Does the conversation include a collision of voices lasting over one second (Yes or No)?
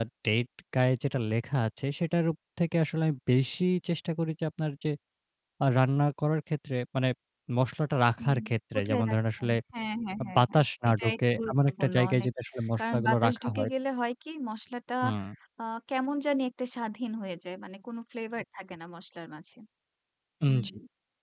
Yes